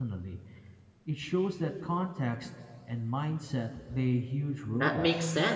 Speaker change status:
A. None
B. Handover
B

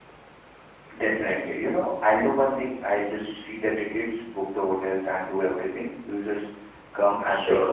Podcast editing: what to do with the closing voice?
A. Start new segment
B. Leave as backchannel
A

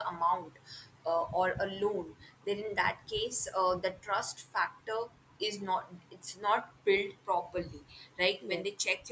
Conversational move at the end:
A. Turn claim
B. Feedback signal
B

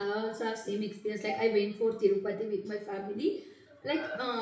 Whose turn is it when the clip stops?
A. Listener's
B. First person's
B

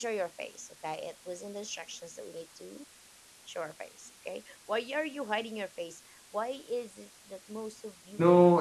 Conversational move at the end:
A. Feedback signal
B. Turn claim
B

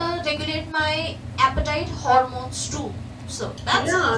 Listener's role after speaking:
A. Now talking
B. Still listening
A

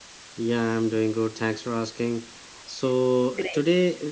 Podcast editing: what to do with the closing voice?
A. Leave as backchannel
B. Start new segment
A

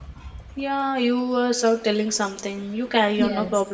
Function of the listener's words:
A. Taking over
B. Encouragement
A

